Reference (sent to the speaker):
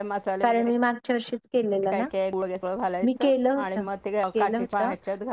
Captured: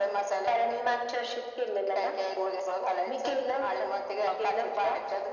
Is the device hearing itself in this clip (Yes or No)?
Yes